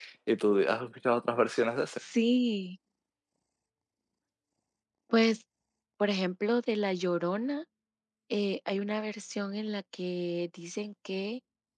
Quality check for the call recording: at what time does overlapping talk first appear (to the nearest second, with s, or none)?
none